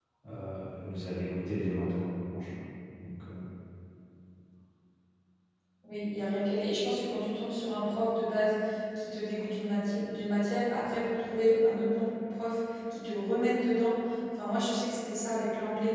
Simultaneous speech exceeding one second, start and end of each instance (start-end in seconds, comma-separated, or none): none